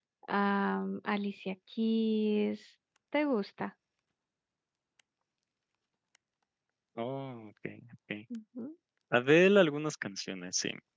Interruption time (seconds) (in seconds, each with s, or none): none